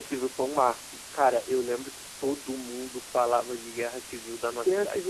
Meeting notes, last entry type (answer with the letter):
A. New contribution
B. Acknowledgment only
A